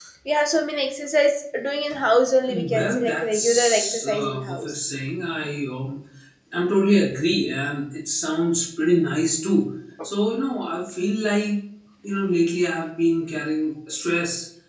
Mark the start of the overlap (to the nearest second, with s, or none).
2 s